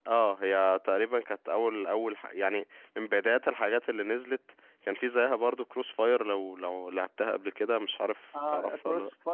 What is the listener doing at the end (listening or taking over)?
taking over